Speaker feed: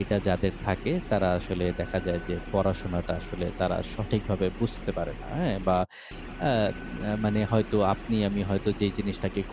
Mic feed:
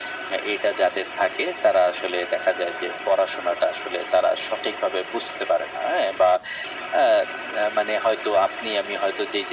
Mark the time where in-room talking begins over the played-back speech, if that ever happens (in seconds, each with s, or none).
none